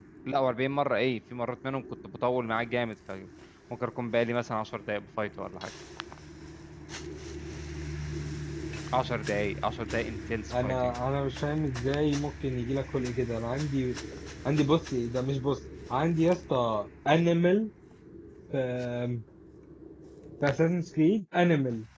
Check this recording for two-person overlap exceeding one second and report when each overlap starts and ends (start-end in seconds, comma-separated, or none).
none